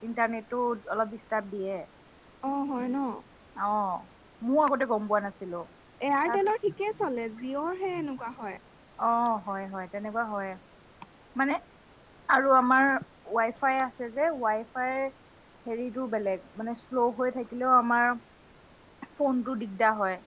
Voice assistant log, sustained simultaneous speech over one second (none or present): none